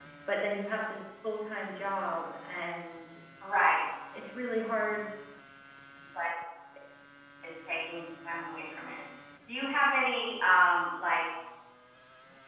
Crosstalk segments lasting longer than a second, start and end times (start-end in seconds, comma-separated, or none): none